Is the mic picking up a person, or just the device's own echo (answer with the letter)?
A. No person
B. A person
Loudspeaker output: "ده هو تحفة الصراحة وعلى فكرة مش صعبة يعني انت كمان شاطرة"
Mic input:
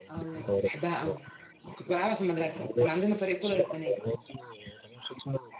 B